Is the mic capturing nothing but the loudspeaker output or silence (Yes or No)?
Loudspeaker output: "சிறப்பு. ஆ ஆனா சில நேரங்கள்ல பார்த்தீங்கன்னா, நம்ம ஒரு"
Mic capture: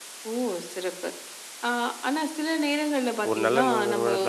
No